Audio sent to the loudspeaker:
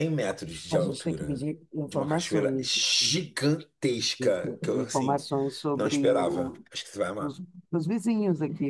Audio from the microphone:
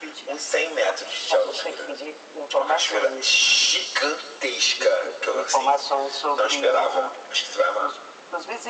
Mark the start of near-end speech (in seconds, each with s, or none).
none